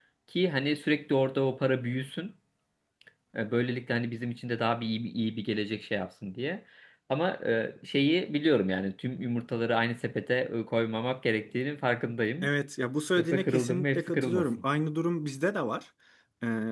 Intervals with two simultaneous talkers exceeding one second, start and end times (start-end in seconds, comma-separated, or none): 13.2-14.5